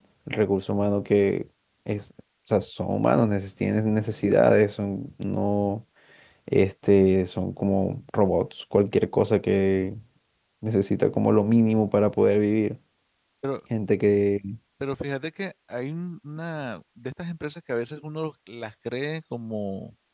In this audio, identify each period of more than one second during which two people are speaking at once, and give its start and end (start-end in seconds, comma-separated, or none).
none